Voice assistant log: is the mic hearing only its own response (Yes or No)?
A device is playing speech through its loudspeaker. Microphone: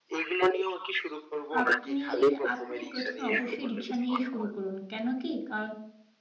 No